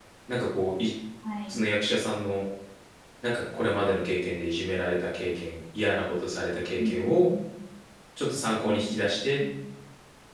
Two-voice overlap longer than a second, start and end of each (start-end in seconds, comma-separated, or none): none